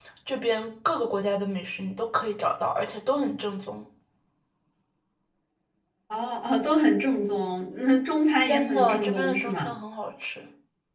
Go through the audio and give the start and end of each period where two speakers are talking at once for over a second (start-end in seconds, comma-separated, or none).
8.5-9.7